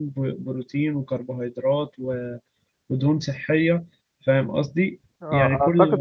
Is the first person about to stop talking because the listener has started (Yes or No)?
Yes